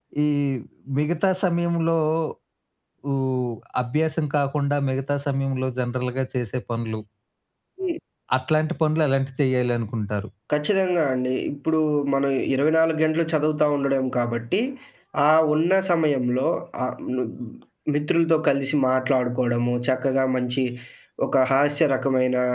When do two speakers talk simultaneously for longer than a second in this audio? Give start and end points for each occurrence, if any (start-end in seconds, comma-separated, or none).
none